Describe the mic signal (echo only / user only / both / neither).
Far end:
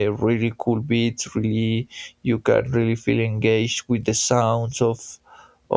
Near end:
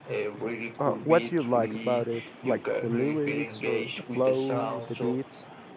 both